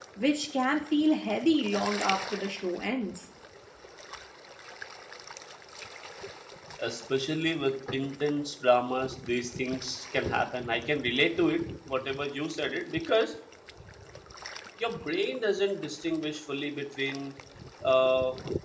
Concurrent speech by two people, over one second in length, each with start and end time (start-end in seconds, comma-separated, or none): none